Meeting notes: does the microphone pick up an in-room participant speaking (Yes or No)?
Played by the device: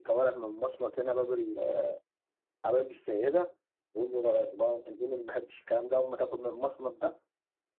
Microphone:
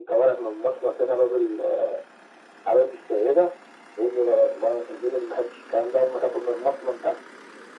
No